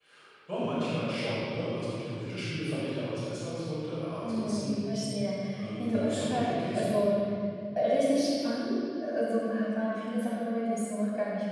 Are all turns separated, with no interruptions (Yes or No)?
No